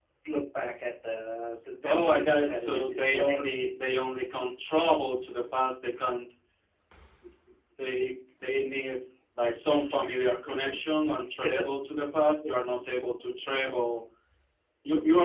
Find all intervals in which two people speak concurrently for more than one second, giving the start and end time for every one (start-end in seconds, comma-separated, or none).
1.8-3.4